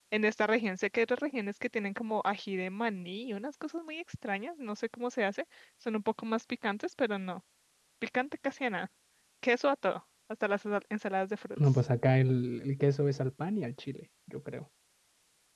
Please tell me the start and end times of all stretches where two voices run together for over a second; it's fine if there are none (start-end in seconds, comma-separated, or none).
none